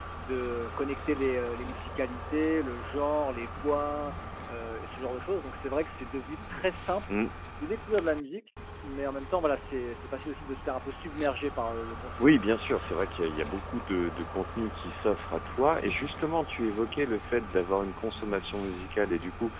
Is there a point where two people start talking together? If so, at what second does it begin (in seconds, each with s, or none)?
none